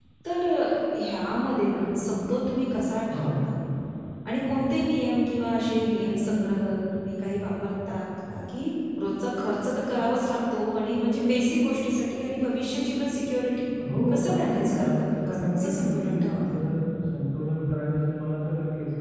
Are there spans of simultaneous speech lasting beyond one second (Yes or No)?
Yes